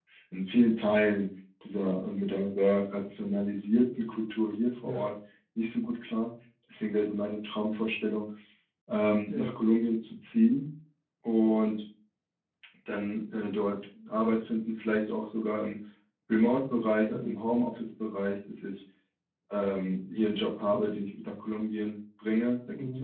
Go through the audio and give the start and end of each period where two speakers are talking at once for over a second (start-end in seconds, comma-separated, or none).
none